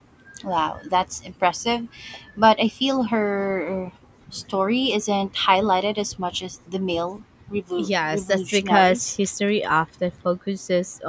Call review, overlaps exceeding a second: present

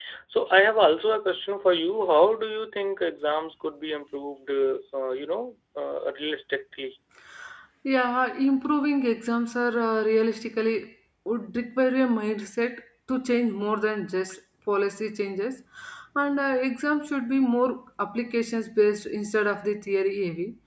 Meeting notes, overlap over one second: none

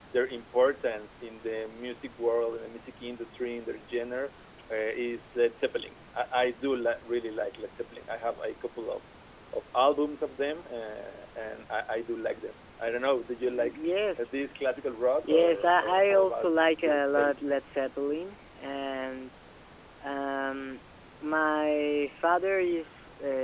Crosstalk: present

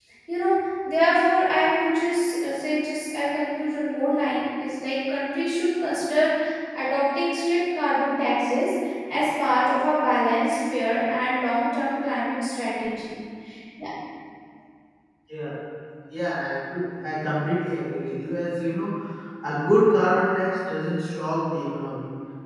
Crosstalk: none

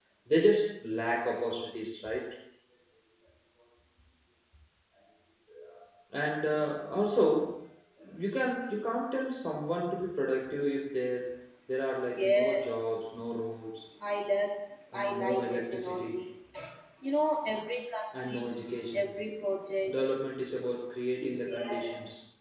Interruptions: present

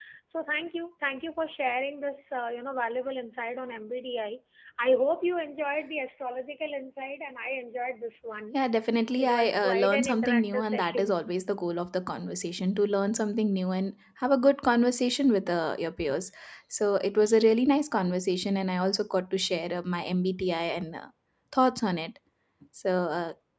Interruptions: present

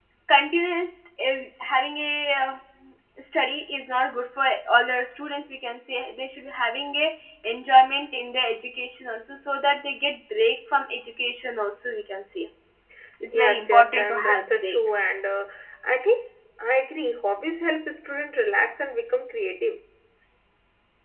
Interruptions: present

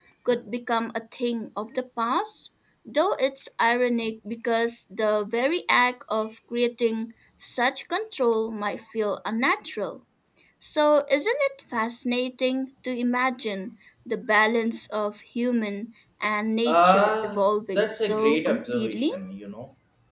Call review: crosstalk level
present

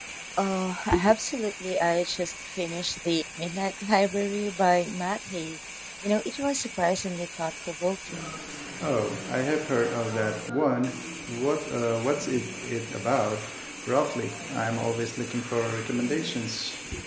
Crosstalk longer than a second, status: none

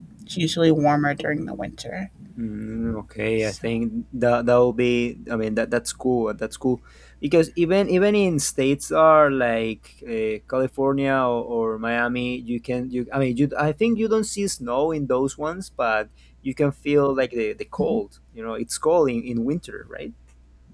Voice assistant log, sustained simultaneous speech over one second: none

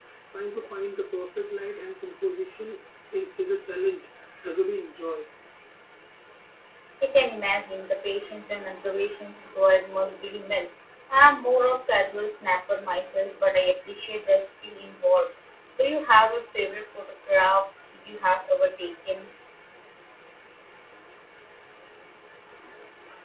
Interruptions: none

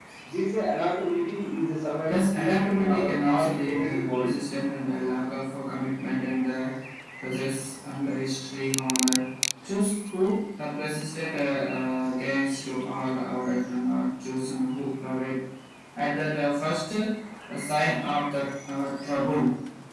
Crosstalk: present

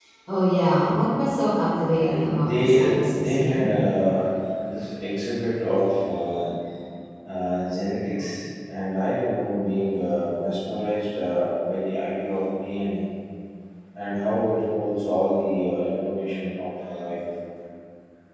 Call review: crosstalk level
present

